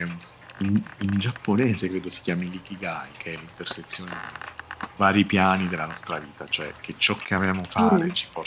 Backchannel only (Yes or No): Yes